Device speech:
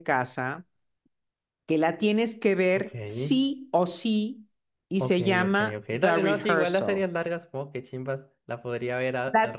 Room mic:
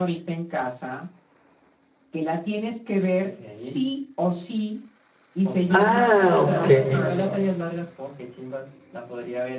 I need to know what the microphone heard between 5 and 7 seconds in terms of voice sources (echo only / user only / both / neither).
both